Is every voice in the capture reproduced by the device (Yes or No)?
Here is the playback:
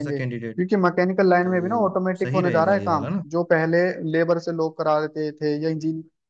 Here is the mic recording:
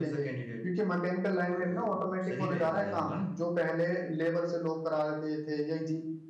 Yes